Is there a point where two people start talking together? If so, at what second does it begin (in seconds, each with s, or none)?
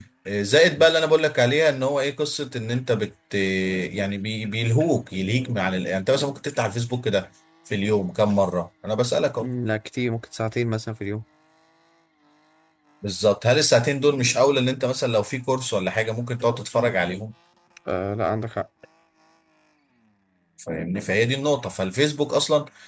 none